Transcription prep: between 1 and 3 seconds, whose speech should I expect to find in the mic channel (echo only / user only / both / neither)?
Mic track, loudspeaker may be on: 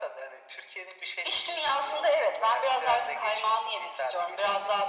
echo only